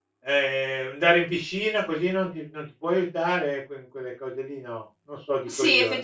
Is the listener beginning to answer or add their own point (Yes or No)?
Yes